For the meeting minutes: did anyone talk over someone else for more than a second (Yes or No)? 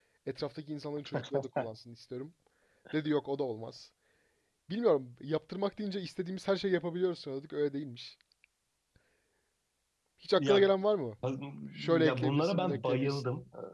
Yes